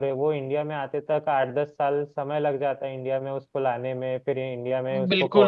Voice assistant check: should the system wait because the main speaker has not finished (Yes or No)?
No